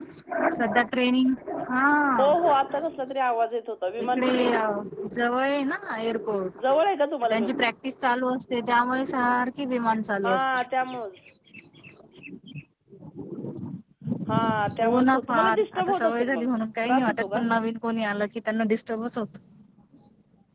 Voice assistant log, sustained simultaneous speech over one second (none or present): present